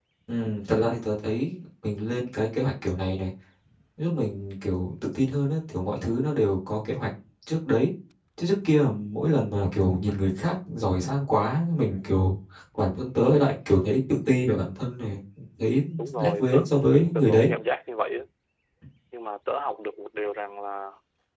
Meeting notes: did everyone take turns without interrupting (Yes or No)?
No